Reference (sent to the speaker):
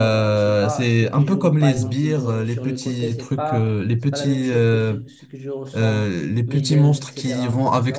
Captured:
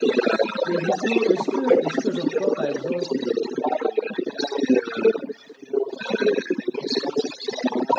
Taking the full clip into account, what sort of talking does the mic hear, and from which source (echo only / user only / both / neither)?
both